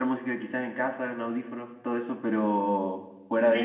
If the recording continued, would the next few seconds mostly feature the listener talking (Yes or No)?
No